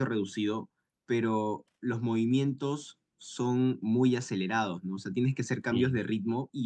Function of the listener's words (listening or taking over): listening